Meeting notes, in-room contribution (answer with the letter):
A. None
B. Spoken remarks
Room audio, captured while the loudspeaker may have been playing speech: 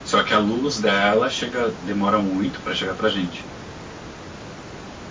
A